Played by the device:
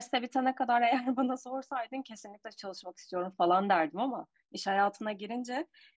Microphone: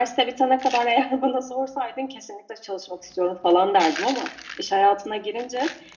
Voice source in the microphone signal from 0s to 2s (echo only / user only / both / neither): echo only